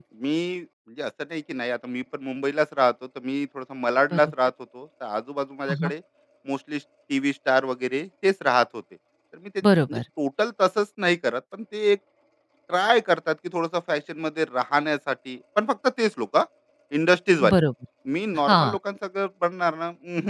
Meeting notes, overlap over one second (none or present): none